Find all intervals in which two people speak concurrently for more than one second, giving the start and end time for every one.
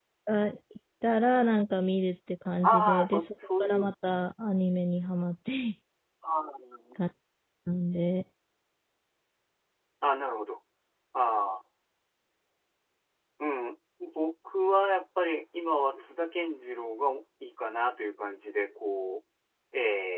2.6-3.9

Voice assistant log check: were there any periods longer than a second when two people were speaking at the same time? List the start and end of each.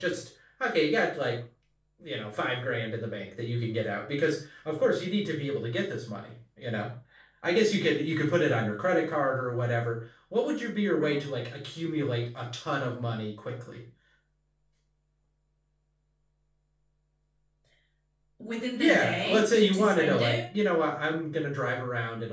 18.7-20.4

